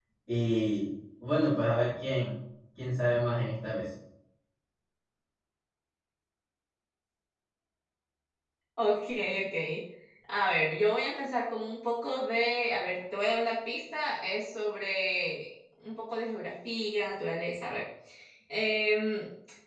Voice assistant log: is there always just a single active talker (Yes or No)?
Yes